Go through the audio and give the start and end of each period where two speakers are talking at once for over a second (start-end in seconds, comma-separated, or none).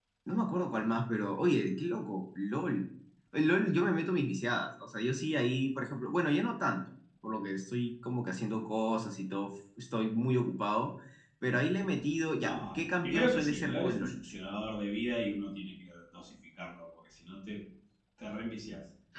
12.4-14.1